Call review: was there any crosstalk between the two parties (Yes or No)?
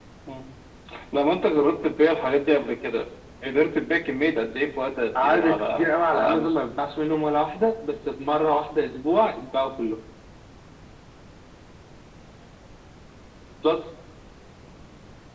Yes